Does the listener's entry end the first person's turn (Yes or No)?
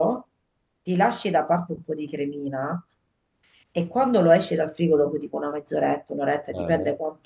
No